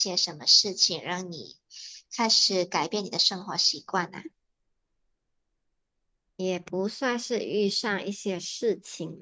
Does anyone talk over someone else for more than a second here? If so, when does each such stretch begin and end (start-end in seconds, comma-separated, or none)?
none